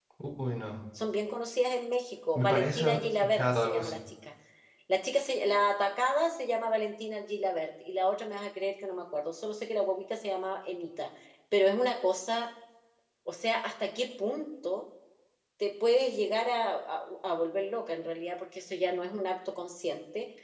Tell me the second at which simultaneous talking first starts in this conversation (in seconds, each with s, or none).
2.4 s